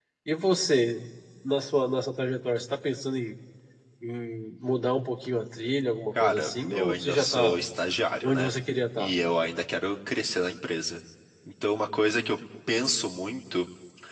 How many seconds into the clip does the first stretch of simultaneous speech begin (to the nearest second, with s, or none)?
6 s